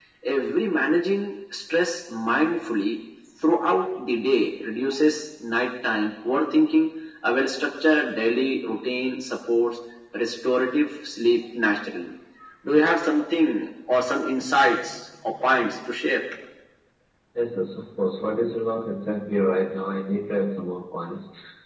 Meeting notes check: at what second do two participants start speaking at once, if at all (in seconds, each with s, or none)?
none